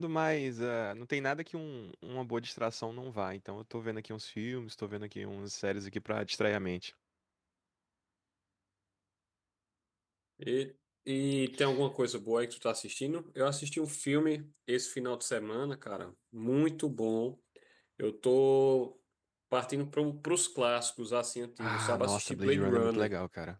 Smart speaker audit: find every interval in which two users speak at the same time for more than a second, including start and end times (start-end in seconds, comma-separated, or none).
21.6-23.1